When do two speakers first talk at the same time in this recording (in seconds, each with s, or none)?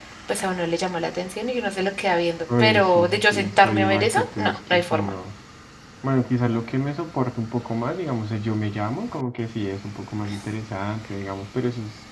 2.5 s